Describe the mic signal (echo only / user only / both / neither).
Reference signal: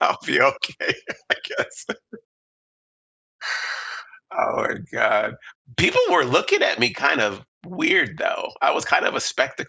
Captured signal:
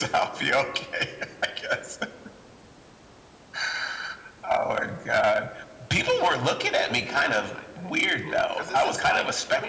both